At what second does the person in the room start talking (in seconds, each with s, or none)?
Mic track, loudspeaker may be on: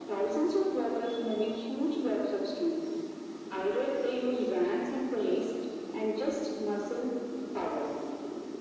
none